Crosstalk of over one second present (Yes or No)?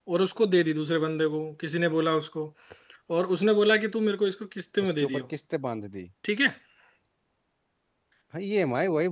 No